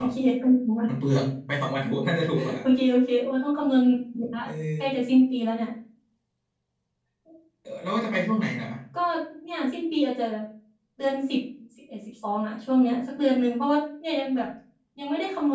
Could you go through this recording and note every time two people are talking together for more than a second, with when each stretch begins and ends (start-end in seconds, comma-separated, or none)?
none